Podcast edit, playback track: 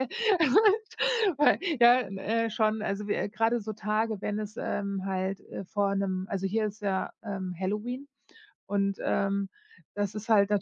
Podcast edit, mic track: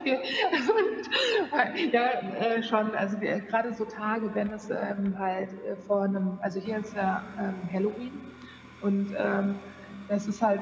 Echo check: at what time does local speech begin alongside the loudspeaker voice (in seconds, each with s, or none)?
none